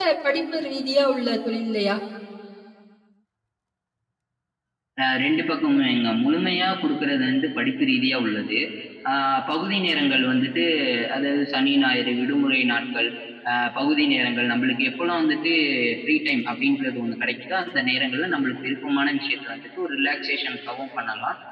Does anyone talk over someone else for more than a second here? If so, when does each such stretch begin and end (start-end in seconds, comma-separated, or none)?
none